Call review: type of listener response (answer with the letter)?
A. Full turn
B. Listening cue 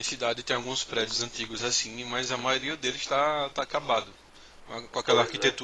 B